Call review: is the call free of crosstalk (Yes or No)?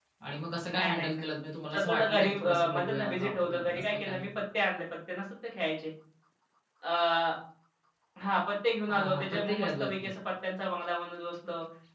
No